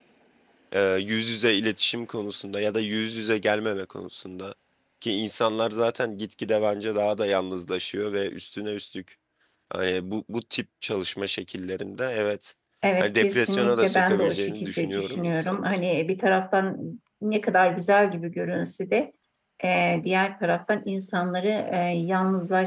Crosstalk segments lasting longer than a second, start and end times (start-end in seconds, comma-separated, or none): 13.0-15.8